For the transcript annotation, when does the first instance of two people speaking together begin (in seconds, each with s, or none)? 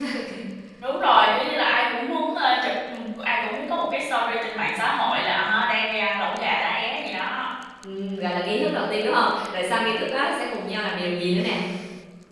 none